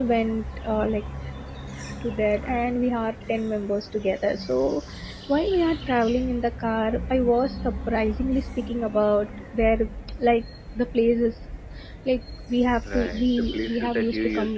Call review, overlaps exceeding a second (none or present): present